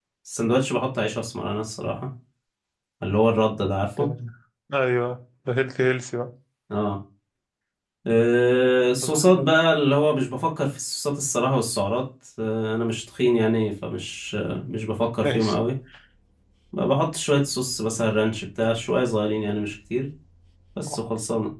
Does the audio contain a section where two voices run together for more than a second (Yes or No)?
No